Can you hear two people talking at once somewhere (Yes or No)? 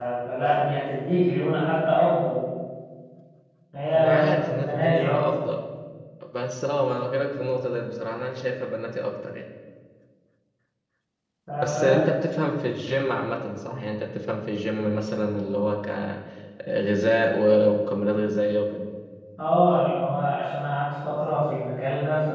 Yes